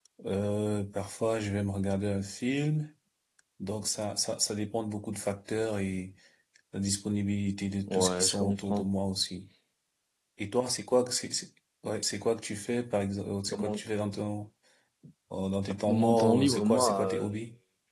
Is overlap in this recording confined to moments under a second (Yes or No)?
No